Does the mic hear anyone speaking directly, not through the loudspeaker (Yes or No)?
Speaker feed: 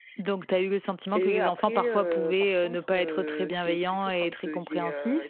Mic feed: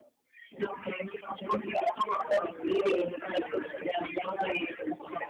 No